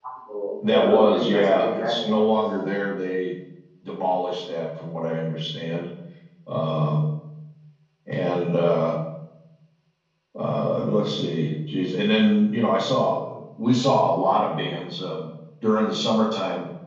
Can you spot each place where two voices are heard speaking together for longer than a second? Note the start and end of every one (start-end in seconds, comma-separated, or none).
0.6-2.2